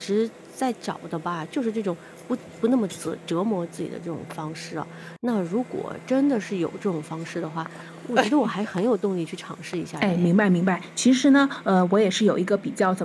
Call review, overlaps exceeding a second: none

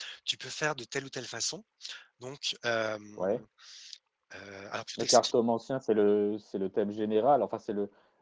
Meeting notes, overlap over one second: none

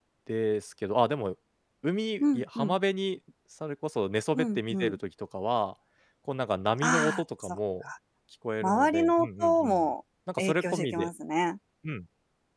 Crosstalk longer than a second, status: present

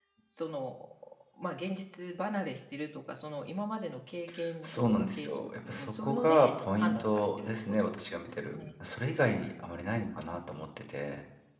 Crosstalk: present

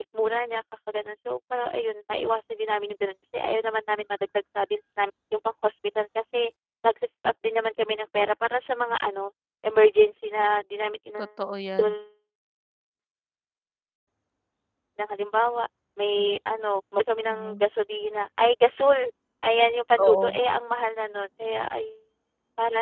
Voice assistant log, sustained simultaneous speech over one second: none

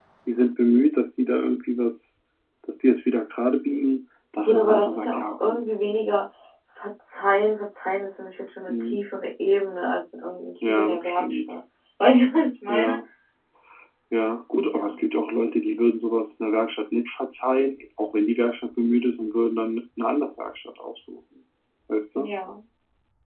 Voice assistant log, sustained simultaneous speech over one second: present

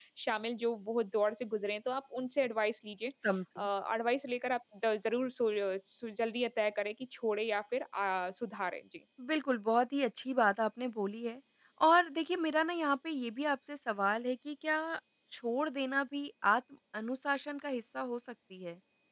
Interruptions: none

